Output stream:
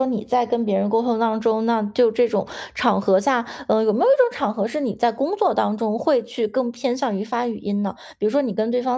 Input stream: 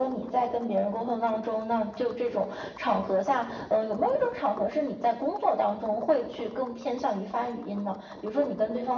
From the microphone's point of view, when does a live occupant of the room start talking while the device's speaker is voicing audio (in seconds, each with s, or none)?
none